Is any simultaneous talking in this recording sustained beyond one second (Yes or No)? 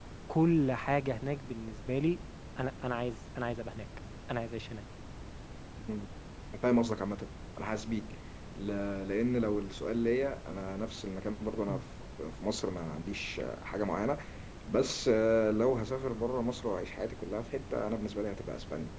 No